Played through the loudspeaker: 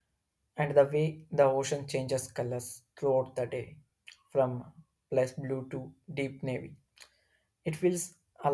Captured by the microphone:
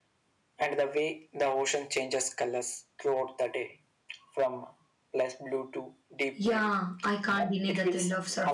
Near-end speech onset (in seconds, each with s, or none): 6.3 s